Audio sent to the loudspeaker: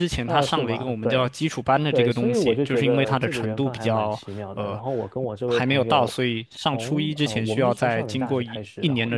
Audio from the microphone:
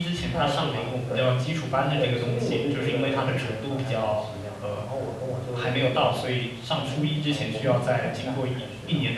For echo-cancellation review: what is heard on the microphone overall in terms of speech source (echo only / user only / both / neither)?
echo only